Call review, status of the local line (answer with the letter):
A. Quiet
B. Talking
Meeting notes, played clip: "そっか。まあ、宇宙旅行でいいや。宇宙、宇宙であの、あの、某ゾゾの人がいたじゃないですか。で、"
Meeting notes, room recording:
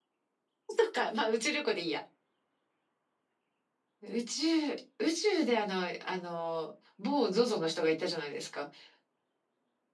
A